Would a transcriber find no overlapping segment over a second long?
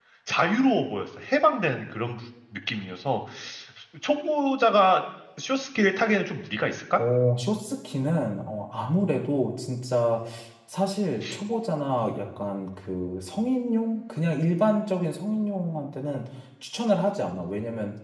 Yes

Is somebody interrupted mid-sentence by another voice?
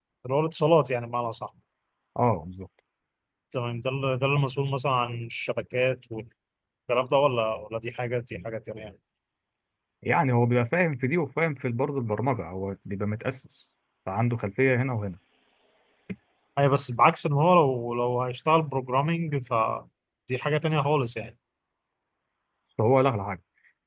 No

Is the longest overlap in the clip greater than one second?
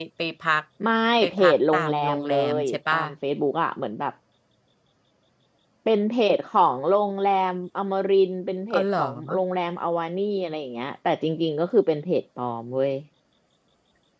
Yes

